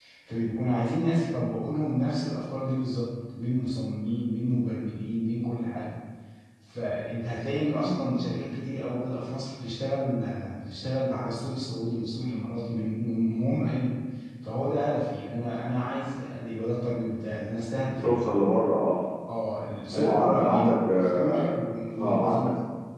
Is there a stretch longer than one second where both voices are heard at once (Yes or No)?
Yes